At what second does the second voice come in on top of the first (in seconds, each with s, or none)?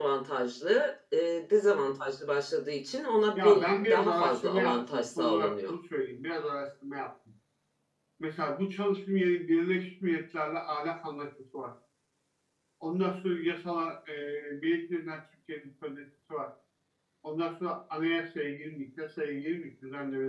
3.4 s